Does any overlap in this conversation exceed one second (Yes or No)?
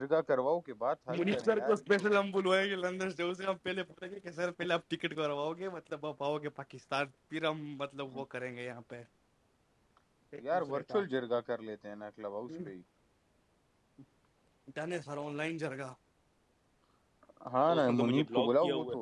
Yes